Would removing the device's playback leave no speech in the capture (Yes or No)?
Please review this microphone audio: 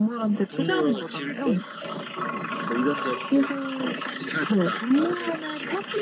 Yes